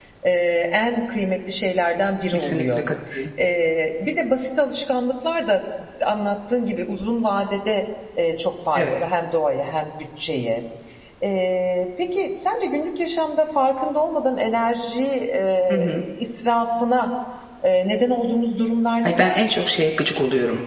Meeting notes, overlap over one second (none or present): none